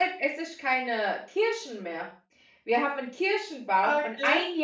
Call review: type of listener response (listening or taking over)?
listening